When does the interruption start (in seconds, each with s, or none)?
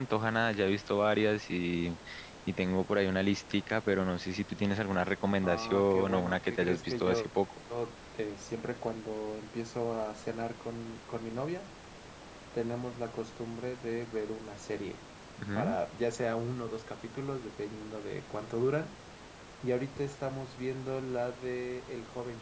5.4 s